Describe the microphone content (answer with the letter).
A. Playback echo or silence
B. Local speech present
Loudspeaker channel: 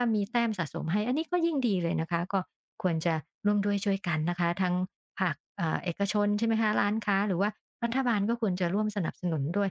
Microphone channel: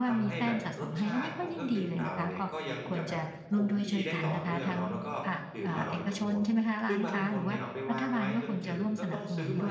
B